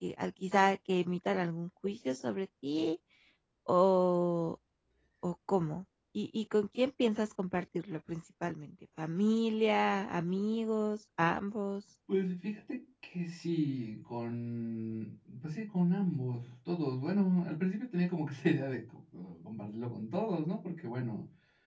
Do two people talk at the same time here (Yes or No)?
No